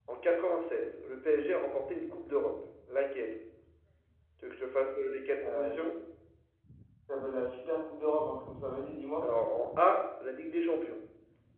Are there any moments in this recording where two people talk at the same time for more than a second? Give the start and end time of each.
none

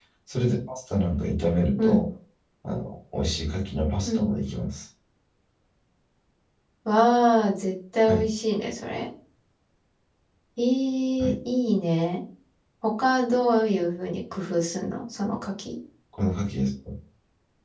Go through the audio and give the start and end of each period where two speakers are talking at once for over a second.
none

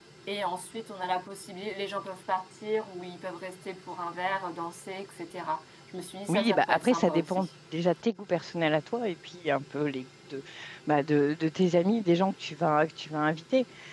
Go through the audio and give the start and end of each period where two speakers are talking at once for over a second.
6.3-7.5

